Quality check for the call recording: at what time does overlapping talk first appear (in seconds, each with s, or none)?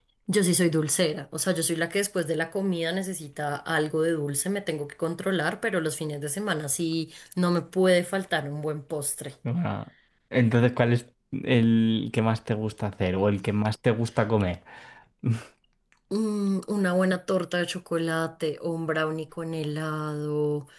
none